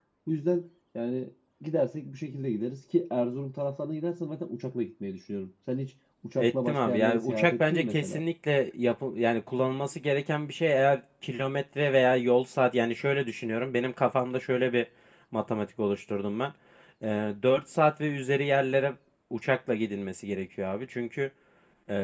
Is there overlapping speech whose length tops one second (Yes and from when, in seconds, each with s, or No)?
Yes, from 6.4 s